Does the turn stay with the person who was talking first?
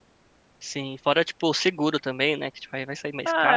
No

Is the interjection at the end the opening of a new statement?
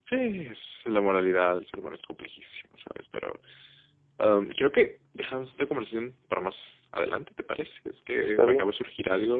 No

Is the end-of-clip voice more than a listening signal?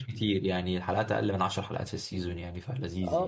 Yes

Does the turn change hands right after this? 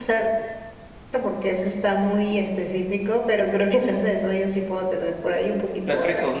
Yes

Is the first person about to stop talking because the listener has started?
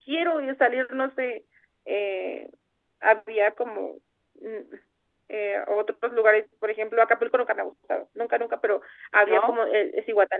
No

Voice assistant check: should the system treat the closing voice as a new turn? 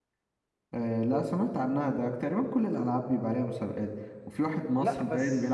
No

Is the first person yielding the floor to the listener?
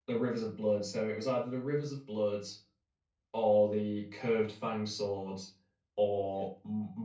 No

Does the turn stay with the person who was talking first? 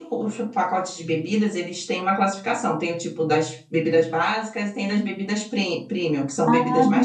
No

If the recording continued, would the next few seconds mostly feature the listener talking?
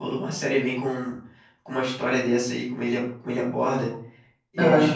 No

